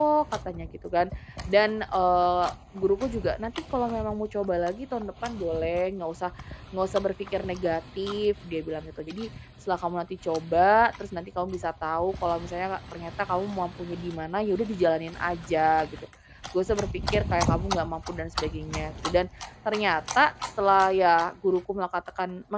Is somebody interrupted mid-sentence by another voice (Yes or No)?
No